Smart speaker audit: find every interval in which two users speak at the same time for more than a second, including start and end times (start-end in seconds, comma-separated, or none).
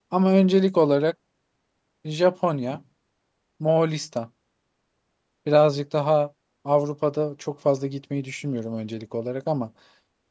none